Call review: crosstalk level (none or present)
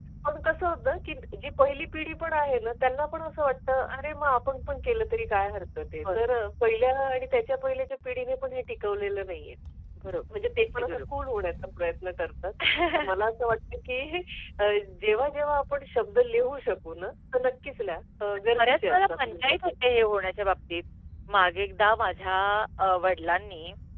present